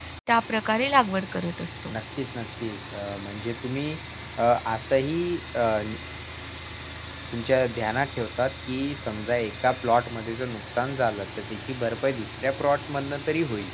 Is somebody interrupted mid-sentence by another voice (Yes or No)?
No